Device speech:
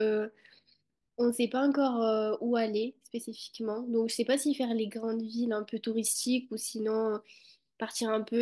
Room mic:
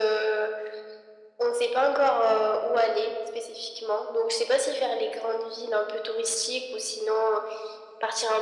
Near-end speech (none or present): none